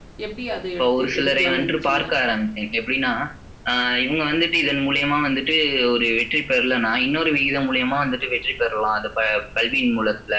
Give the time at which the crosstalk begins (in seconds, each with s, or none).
0.8 s